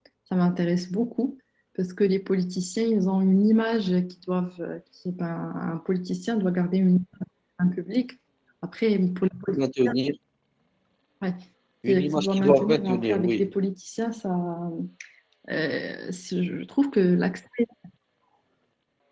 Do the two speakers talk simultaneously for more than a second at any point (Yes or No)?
Yes